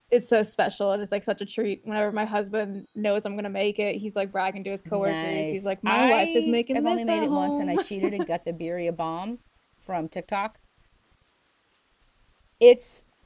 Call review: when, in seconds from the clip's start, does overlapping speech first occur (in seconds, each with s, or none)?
4.8 s